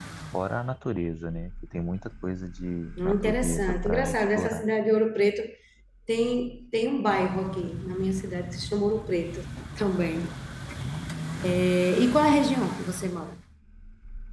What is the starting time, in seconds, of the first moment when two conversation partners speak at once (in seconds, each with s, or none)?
3.0 s